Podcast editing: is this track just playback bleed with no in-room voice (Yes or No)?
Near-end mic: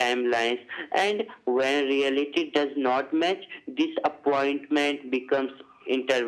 Yes